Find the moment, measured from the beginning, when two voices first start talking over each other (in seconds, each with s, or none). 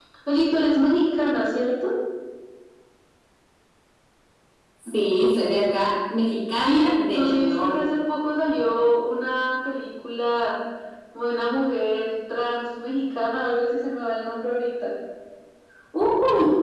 6.6 s